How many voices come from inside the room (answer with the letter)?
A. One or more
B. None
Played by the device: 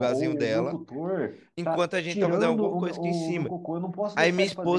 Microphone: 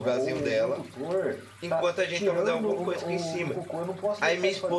B